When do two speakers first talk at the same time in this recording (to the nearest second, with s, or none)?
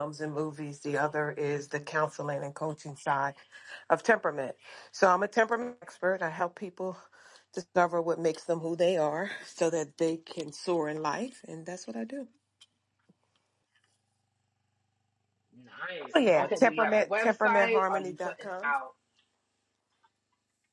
16 s